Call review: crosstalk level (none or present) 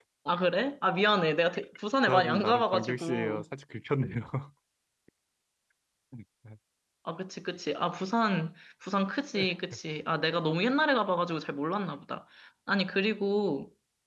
present